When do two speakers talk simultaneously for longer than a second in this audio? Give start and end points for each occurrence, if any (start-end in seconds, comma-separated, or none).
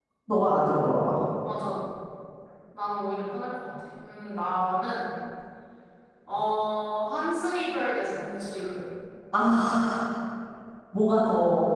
none